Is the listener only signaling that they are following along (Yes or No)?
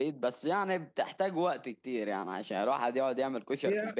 No